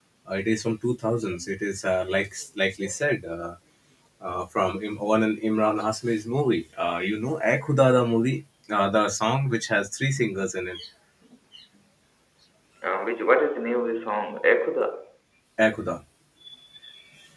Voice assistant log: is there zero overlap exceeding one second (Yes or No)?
Yes